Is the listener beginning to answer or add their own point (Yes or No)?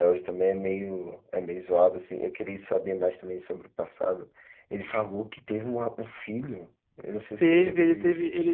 Yes